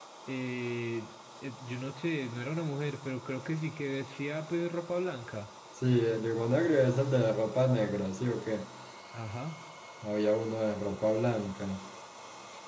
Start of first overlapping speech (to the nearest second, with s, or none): none